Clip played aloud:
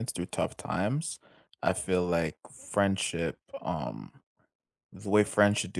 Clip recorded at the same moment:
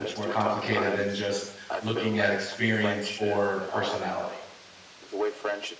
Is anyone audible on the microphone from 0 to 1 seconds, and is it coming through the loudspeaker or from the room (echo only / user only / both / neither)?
both